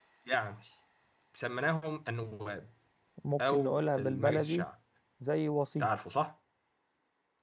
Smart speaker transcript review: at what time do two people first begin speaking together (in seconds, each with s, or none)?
3.4 s